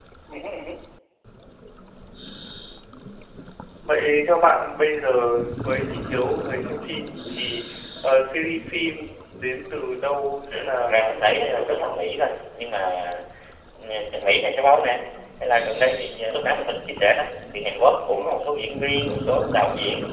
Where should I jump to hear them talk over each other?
10.5 s

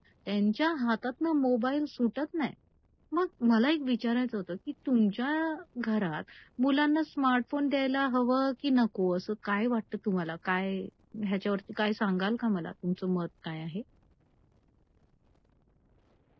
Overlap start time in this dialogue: none

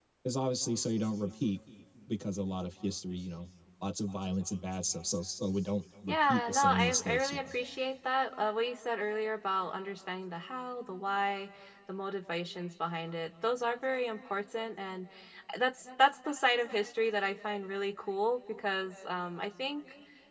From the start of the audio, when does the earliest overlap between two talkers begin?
6.1 s

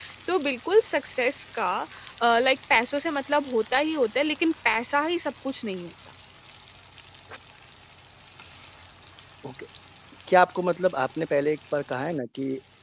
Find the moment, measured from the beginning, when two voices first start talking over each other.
none

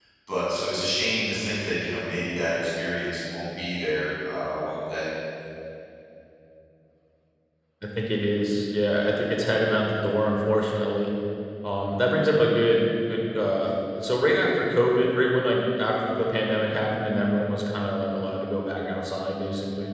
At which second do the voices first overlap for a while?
none

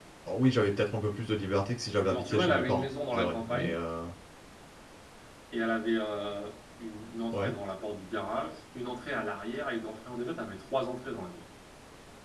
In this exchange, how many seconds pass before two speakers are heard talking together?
2.1 s

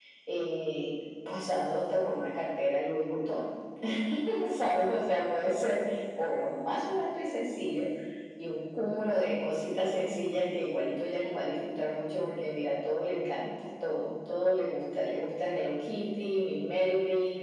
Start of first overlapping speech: none

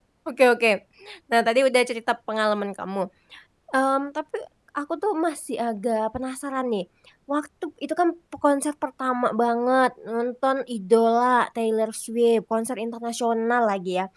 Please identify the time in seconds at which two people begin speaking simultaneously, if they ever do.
none

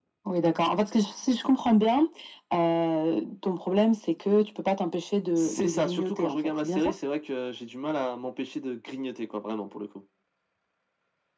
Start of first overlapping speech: 5.4 s

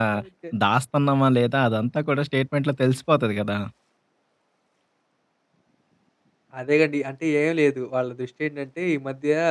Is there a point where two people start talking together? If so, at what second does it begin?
none

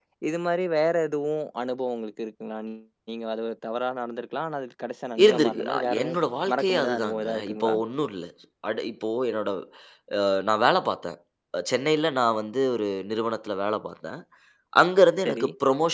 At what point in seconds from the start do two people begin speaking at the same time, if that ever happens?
5.2 s

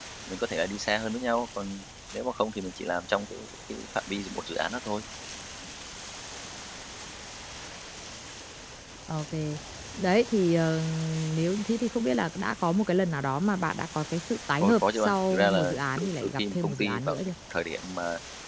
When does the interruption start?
14.6 s

